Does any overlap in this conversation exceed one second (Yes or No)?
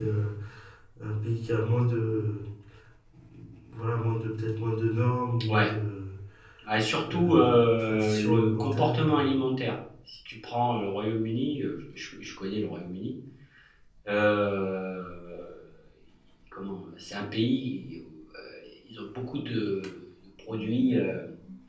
Yes